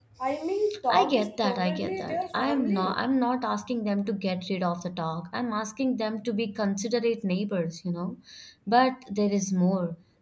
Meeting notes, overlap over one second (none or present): present